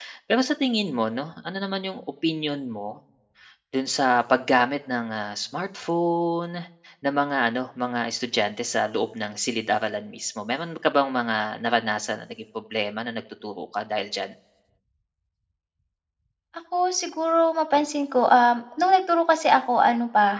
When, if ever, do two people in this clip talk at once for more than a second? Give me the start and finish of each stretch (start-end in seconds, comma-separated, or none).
none